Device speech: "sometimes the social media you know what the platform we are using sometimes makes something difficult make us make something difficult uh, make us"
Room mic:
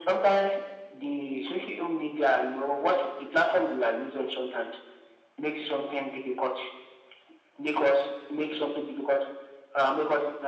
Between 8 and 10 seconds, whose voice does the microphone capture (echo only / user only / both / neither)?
echo only